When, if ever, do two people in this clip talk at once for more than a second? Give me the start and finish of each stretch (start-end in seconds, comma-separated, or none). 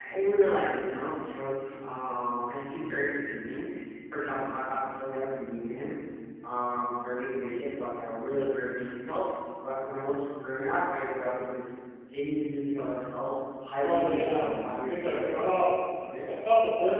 13.8-15.5